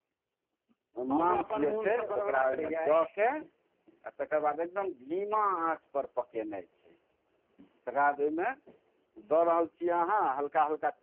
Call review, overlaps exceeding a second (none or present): present